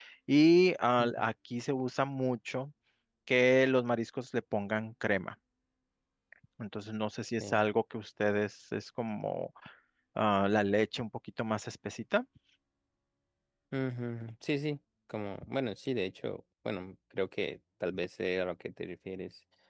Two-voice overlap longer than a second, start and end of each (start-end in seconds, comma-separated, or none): none